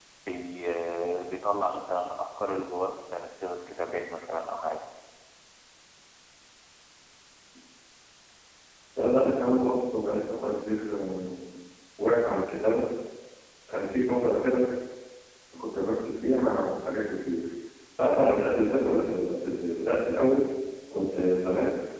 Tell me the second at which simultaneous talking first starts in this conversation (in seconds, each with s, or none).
none